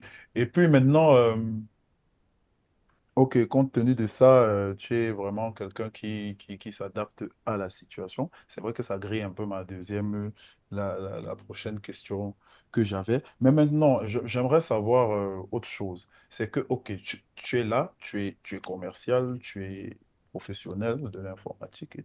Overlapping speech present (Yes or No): No